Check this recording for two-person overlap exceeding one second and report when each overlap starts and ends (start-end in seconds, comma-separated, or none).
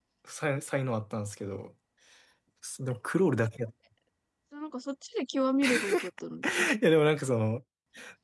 none